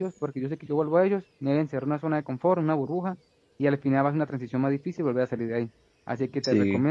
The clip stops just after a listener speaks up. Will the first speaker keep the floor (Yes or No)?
Yes